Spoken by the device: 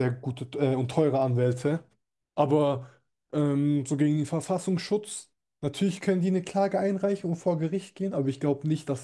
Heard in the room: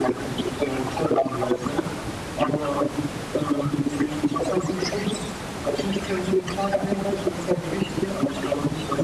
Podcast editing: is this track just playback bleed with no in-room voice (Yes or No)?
Yes